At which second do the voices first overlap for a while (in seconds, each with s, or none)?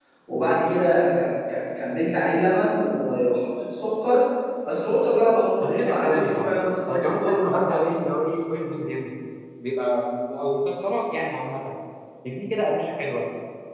5.6 s